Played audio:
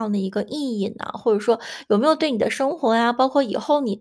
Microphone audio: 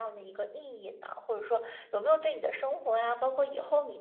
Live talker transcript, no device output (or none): none